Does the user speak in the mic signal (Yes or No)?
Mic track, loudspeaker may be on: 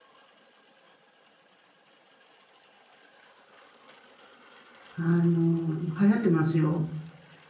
Yes